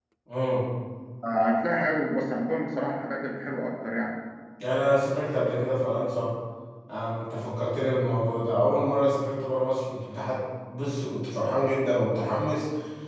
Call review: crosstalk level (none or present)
none